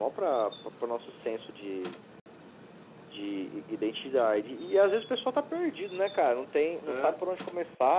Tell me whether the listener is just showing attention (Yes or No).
Yes